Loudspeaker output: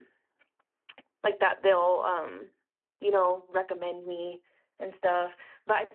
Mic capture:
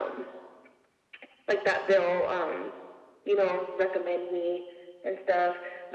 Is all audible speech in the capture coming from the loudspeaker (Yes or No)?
Yes